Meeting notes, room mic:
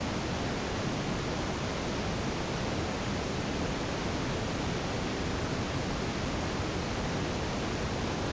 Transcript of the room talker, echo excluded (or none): none